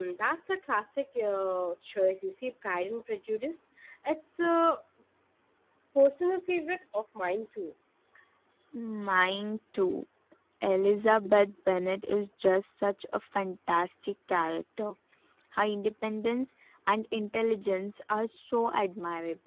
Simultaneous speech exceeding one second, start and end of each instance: none

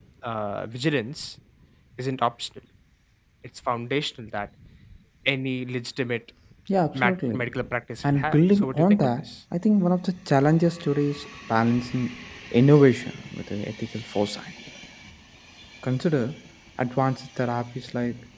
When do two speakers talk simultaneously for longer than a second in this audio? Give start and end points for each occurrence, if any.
8.0-9.3

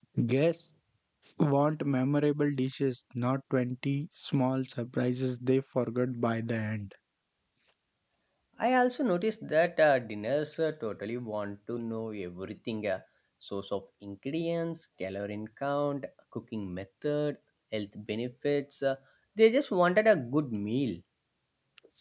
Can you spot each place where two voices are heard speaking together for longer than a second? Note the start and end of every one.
none

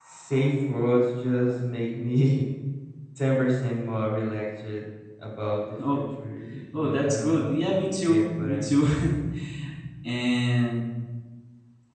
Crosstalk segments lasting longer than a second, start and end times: 6.7-8.8

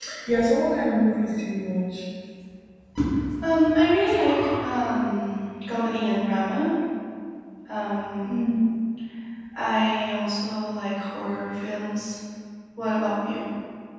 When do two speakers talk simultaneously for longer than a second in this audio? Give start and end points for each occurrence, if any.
none

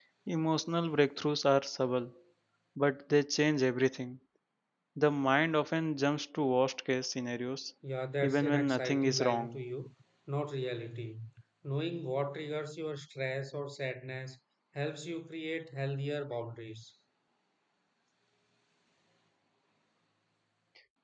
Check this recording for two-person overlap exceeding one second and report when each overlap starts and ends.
8.2-9.6

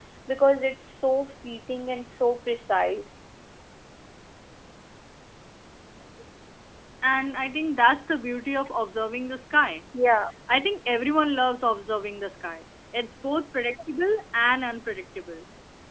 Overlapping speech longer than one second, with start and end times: none

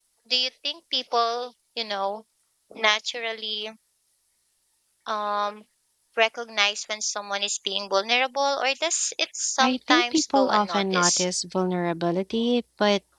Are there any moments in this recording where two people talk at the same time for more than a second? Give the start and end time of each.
9.6-11.2

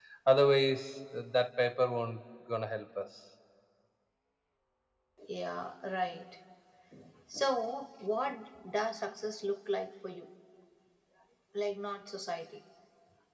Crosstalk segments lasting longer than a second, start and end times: none

